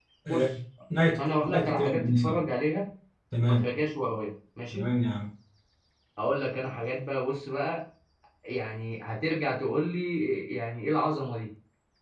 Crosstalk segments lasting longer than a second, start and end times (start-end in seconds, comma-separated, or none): 1.2-2.4